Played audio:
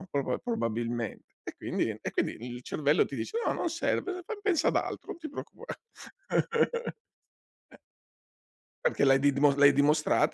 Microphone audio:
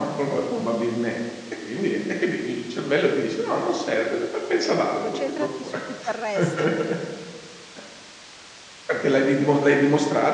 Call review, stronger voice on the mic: echo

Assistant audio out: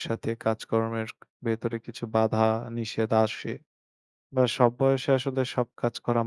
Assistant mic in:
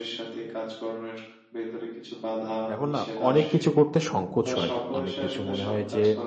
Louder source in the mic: user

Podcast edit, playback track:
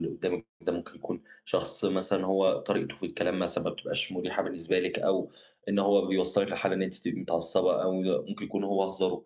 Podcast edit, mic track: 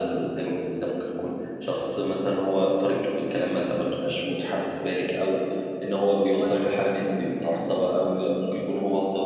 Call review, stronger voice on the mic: echo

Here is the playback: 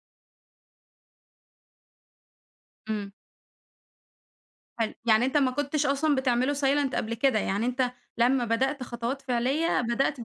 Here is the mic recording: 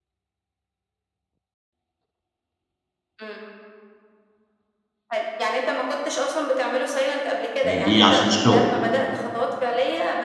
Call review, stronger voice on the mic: user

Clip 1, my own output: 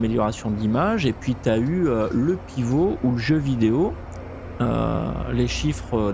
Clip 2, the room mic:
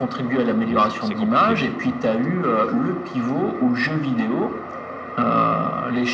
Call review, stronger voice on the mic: echo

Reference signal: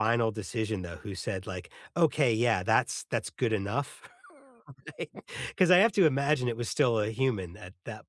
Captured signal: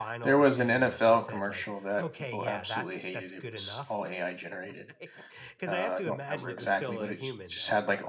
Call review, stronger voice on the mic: user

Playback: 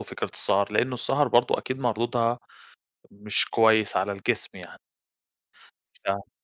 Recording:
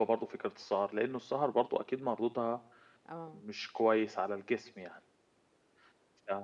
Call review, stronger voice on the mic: echo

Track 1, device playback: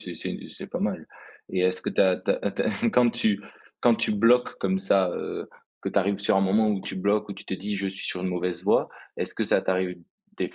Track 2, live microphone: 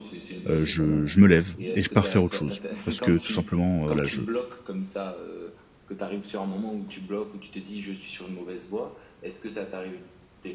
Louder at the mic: user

